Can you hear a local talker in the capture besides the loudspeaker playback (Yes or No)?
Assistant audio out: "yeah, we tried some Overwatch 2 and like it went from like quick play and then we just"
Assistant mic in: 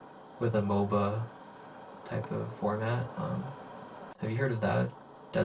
Yes